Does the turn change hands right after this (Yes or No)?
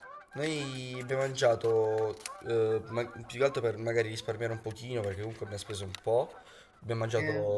No